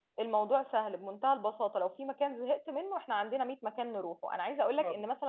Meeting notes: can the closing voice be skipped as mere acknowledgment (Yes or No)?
Yes